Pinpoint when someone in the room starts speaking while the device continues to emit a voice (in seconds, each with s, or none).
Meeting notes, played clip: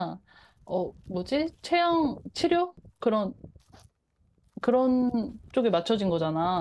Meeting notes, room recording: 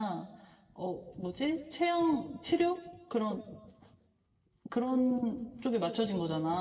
none